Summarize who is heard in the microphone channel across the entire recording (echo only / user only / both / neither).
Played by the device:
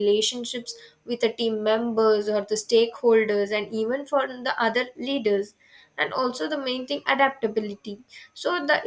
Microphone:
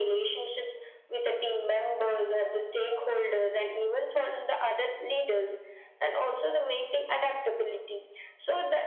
echo only